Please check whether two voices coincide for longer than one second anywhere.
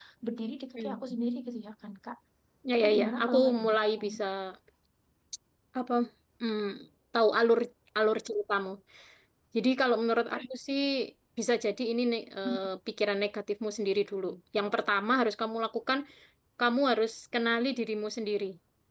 Yes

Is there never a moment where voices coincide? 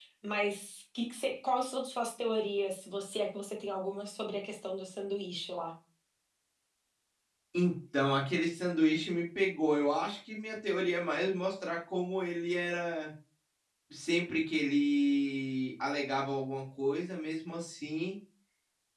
Yes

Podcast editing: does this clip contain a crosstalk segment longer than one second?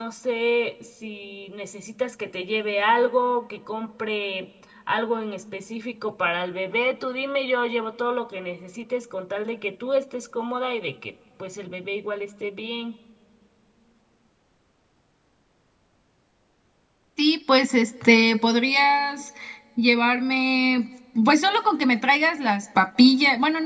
No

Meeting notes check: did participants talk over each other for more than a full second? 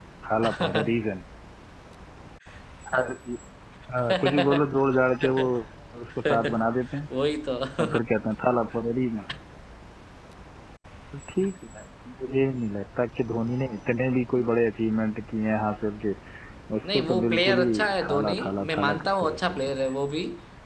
Yes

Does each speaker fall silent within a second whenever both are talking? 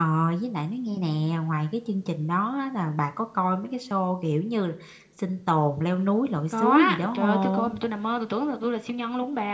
No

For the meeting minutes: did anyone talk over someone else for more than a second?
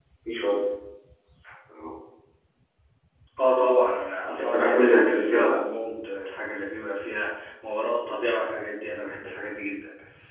Yes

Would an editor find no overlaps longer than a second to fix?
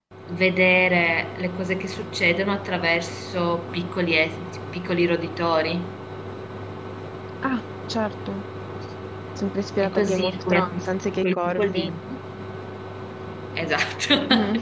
No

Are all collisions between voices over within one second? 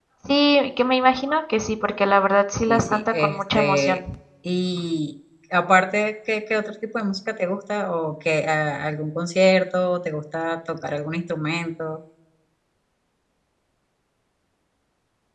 No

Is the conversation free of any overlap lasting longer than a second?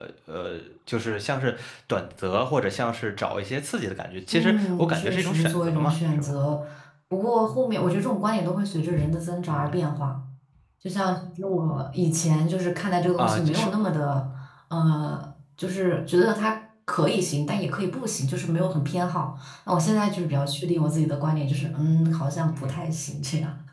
No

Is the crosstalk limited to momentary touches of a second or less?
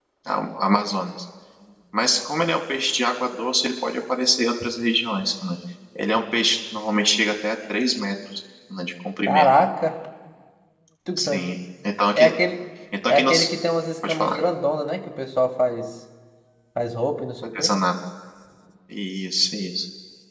Yes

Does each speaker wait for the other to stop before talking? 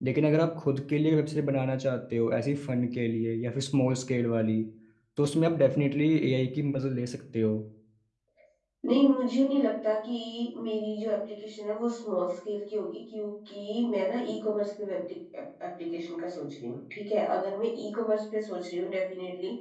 Yes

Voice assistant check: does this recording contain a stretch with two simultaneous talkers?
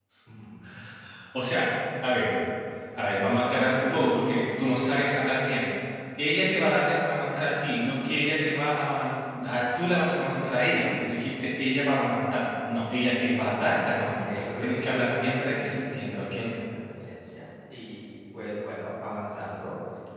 Yes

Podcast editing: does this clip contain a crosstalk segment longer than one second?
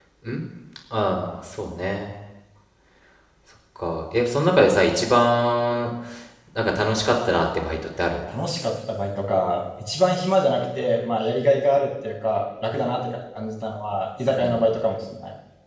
No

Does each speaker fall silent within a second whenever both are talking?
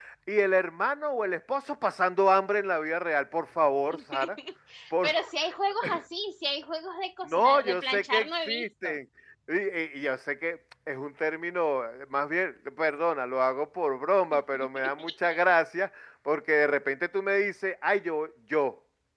No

